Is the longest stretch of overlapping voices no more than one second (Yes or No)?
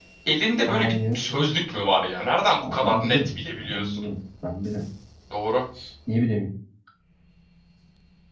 No